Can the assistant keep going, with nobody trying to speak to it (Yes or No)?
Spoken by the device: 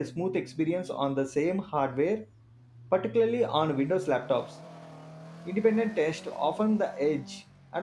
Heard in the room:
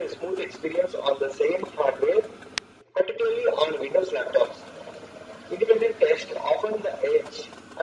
Yes